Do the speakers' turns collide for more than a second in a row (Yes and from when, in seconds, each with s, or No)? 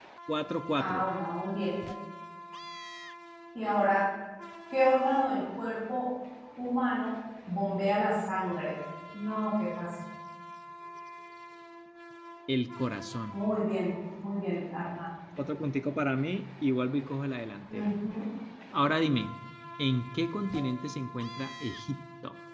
No